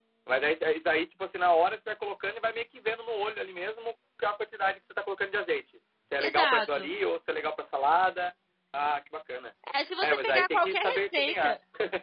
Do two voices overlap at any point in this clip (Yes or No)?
Yes